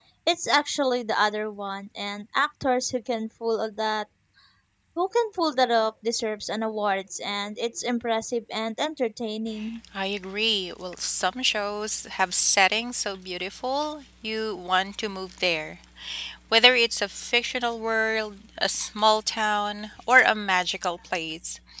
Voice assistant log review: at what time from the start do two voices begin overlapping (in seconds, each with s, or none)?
none